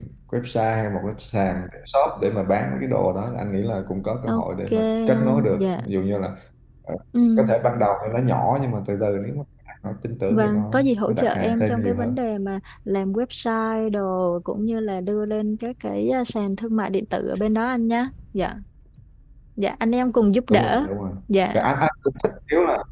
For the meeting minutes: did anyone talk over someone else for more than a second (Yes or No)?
Yes